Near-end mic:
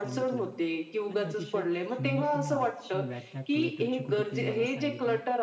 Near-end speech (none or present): present